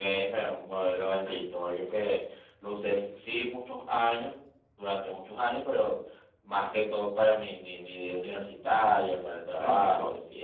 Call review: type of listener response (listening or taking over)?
taking over